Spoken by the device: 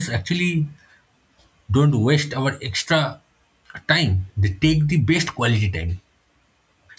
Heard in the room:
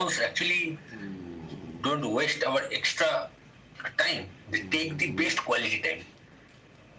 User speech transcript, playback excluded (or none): none